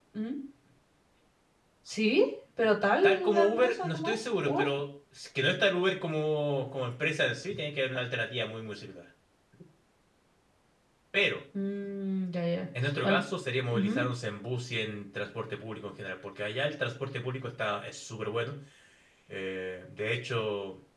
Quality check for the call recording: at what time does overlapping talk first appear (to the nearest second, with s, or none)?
3 s